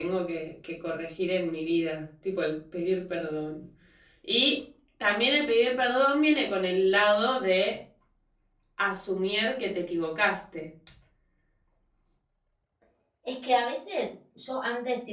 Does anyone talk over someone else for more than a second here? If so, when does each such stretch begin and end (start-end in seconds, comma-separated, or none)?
none